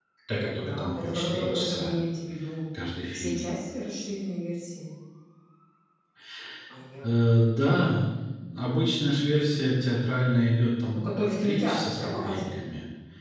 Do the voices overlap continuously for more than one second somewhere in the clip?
Yes, from 0.6 s

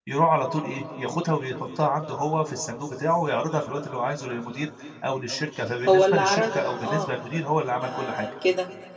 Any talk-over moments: Yes, from 5.9 s

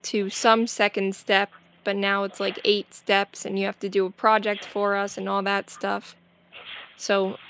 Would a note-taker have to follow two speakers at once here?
No

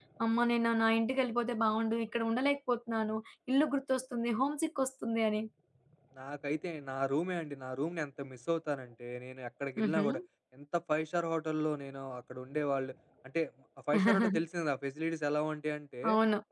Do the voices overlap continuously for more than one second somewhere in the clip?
No

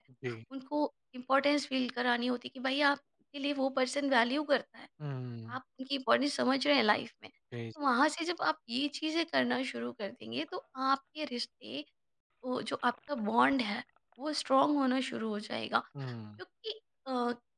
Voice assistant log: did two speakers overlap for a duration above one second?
No

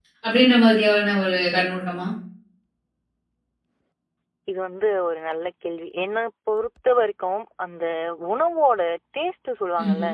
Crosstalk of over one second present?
No

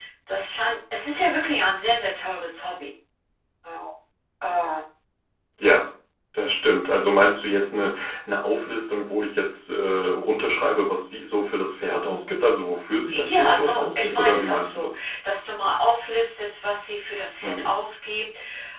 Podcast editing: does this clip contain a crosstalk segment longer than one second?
Yes, from 13.1 s

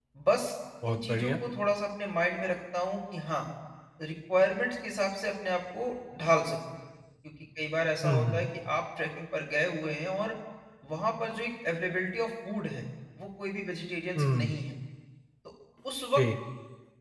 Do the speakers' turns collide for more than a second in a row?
No

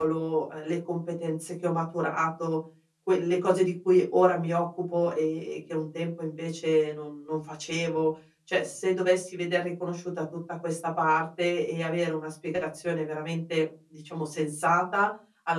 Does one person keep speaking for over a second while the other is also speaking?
No

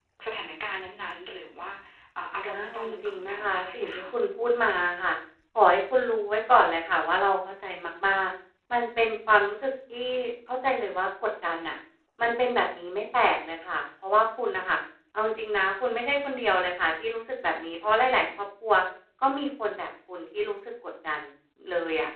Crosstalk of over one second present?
Yes, from 2.5 s

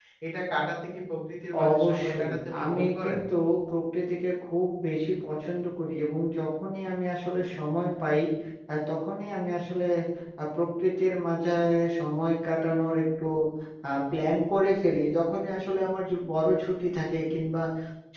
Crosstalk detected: Yes, from 1.5 s

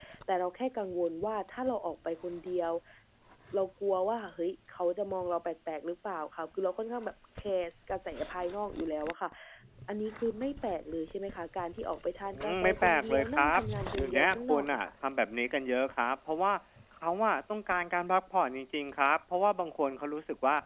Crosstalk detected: Yes, from 12.3 s

